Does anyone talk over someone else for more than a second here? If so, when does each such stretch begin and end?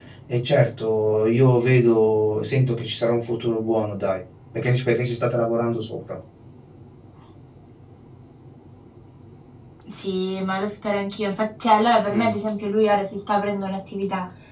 none

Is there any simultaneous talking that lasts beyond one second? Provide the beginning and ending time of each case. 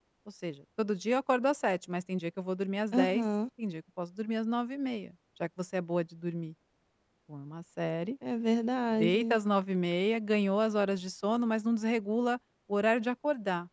none

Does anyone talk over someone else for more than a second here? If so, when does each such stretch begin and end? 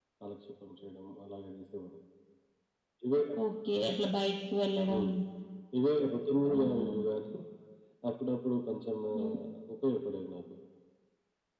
none

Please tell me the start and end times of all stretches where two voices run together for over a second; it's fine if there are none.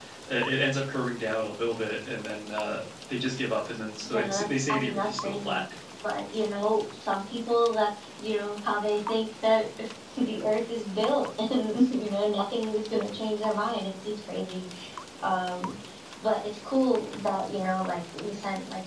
4.1-5.6

